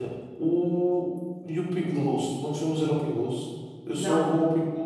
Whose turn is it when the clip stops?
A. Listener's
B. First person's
B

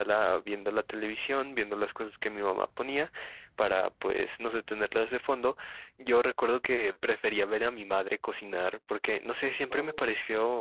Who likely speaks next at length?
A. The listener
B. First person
B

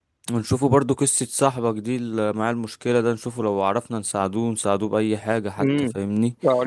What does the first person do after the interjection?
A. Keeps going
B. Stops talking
B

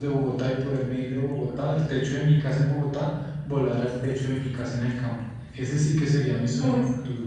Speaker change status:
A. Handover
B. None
A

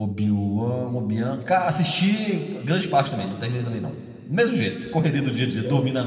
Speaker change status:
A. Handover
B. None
A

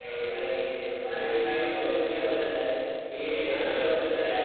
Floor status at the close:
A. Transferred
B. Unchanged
B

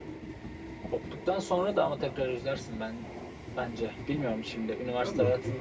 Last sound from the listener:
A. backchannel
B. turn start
B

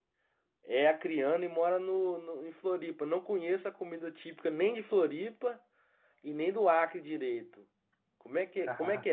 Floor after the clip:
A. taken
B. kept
B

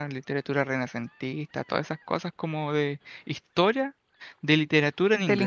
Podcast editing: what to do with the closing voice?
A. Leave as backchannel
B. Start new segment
B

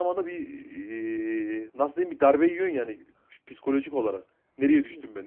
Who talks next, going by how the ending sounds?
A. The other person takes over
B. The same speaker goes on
A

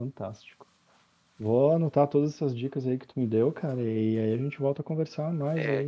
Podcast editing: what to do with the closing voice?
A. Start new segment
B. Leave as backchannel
A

